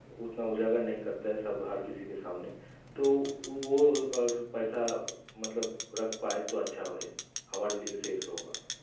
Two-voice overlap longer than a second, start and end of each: none

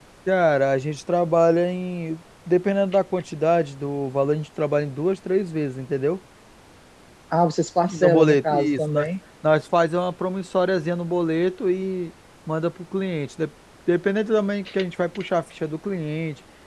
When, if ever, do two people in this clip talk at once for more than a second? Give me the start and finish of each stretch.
7.9-9.1

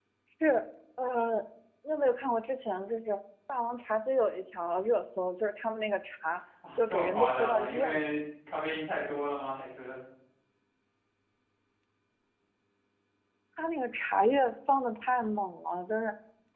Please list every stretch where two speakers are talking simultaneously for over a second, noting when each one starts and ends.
6.8-8.0

